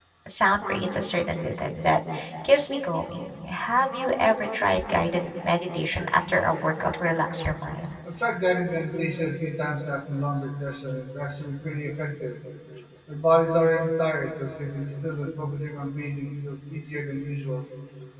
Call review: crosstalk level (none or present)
none